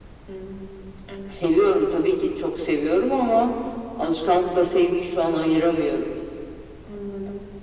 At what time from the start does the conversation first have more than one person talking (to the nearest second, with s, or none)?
none